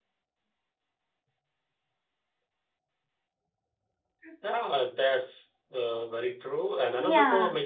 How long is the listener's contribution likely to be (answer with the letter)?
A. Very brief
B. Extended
A